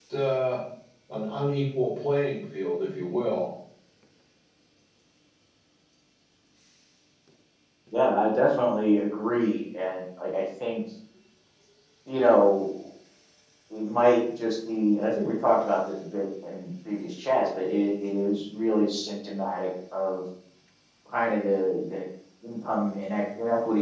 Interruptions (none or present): none